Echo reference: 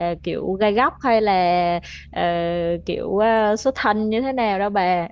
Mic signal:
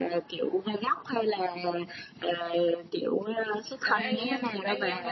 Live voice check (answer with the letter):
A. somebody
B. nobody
A